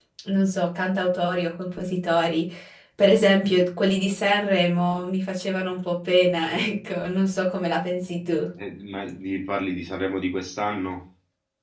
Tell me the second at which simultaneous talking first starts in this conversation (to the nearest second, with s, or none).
none